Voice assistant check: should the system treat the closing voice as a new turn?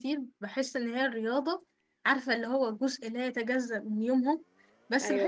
No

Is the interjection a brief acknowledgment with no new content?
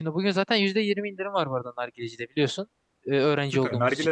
No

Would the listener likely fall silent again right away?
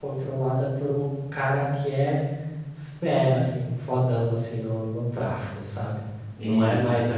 Yes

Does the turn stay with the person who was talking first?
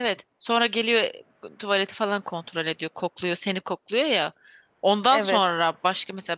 Yes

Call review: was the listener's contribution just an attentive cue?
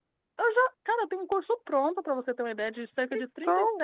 Yes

